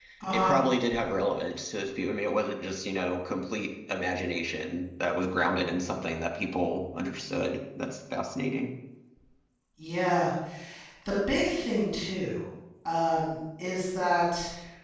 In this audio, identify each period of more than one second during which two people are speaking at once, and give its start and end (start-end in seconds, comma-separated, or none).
none